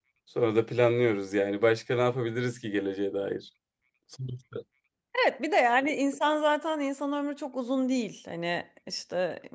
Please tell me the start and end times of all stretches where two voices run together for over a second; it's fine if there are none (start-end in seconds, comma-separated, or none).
none